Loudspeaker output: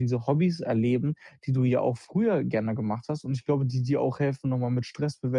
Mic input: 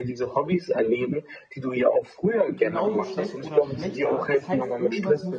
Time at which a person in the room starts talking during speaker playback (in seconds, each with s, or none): 2.5 s